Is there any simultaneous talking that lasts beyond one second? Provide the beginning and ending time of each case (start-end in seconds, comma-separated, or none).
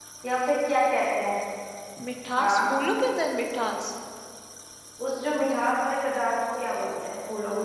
none